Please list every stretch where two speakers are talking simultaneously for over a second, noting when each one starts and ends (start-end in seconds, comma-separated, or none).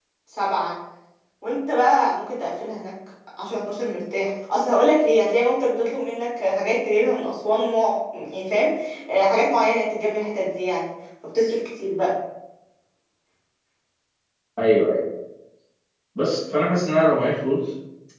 none